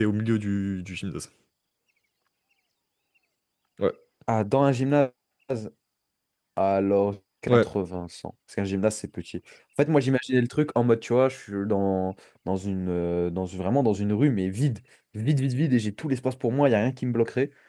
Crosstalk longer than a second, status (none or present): none